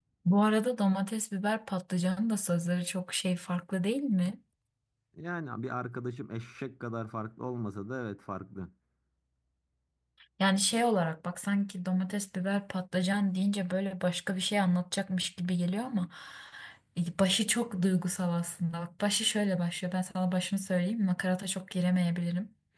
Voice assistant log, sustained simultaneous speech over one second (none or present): none